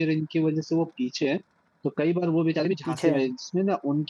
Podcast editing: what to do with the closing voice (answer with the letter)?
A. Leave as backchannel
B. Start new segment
A